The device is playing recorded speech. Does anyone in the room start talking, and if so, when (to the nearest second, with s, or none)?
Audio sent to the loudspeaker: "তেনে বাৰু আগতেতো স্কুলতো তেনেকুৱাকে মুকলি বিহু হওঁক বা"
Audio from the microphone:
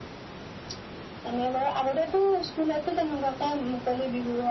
none